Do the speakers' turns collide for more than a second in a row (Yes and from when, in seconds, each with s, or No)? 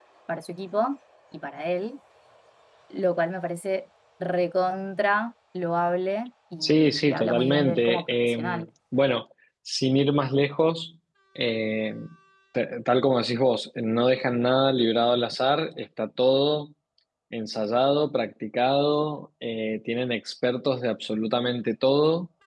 Yes, from 6.6 s